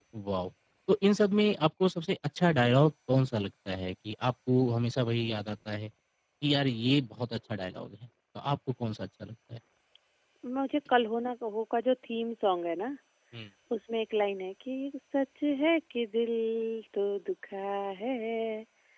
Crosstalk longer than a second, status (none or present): none